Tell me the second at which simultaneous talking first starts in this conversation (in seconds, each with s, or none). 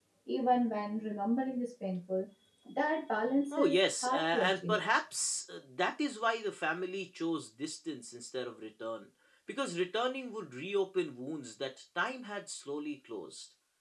3.5 s